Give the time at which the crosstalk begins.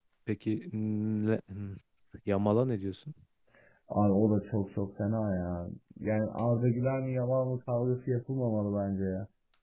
none

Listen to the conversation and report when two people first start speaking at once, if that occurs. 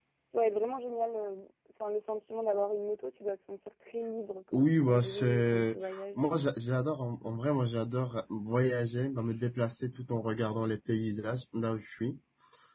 5 s

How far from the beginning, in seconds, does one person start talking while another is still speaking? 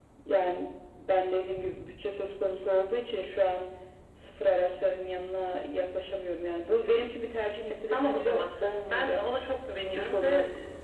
8 s

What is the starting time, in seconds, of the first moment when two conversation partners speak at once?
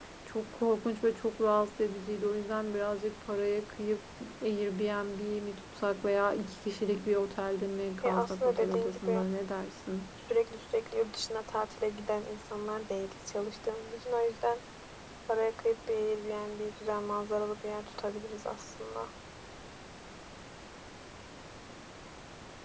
8 s

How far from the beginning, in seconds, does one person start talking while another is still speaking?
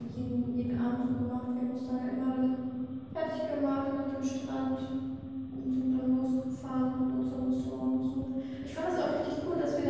none

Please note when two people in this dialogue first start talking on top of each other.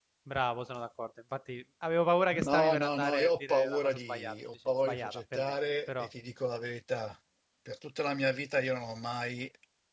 2 s

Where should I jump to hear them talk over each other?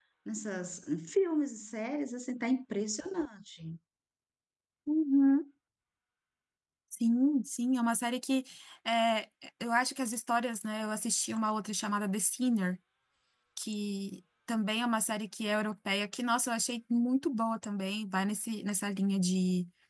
none

